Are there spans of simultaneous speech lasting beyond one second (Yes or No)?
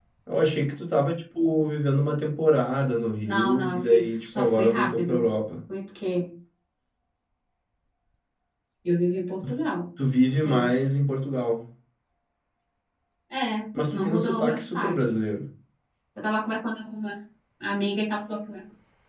Yes